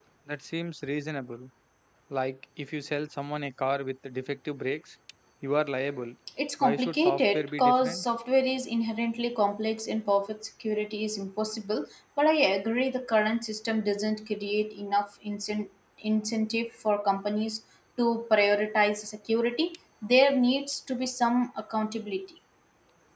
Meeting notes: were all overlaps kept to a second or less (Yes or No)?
No